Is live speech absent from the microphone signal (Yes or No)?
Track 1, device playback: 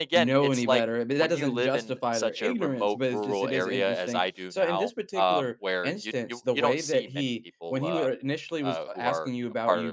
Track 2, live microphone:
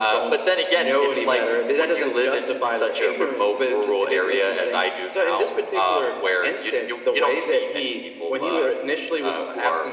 Yes